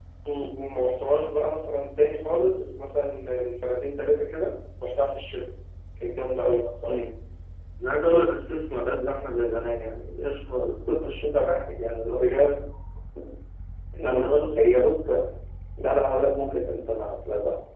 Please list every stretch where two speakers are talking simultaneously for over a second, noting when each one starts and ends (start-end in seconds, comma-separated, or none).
none